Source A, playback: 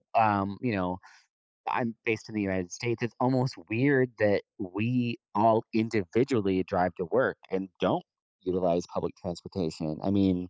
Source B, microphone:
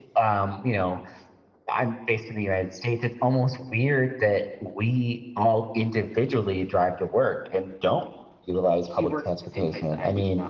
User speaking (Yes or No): Yes